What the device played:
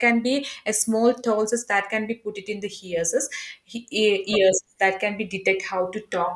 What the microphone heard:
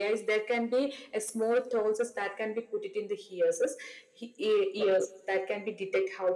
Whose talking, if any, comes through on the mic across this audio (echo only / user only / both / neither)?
echo only